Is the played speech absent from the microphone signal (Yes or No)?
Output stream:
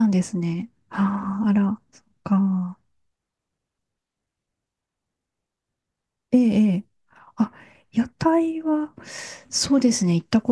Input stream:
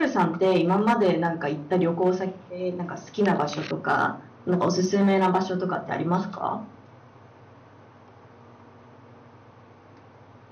Yes